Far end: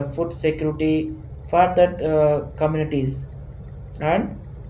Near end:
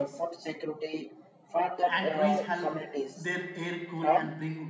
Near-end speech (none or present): present